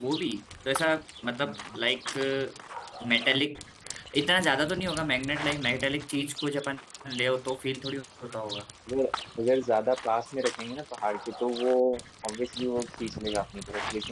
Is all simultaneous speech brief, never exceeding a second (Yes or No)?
Yes